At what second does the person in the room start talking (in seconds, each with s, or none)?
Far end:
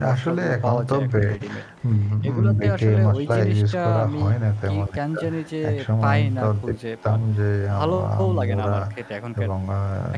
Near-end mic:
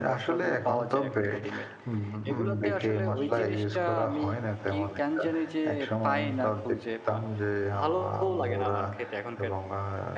none